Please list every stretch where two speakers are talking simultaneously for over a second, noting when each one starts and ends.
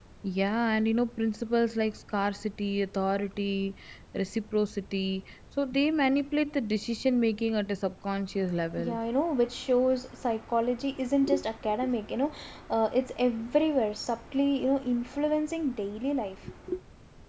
none

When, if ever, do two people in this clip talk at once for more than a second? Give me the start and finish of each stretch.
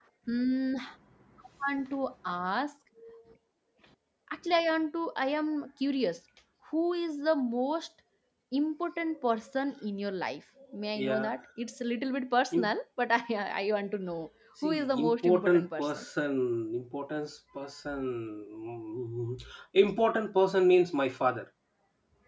14.6-16.1

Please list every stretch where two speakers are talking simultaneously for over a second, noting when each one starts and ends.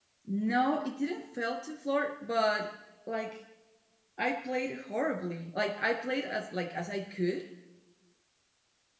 none

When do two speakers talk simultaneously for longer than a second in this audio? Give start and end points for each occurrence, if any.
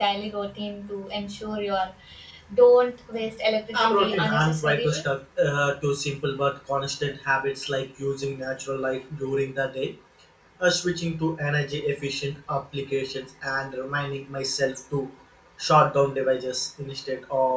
3.7-5.0

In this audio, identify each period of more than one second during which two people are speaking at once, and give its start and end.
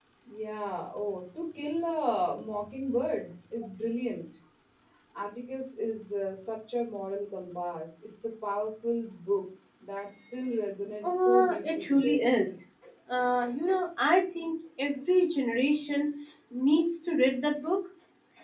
11.0-12.2

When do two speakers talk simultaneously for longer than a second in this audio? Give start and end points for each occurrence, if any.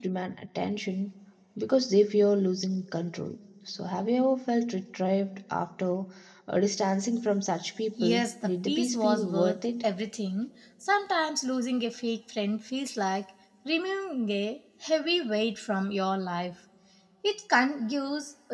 8.0-9.6

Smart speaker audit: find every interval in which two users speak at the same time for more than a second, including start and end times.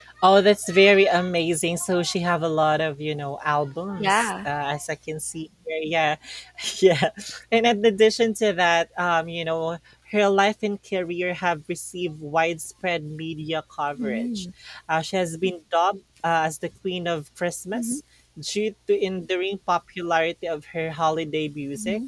none

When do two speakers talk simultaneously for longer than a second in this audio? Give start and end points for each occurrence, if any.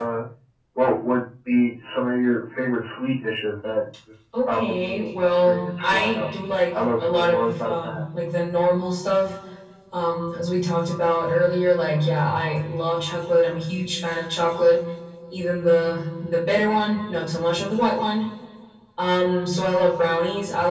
4.5-6.3, 6.7-8.0

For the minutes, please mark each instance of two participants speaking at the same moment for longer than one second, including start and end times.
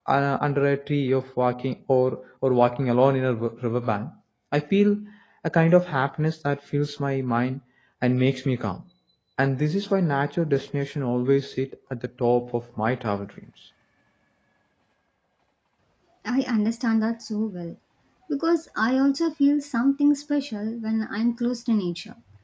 none

